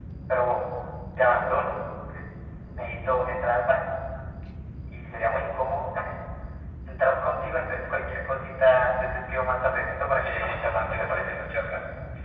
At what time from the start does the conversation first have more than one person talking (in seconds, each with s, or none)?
10.1 s